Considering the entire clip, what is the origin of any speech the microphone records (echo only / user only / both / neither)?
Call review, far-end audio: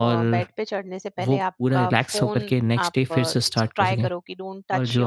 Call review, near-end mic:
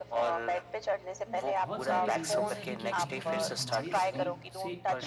both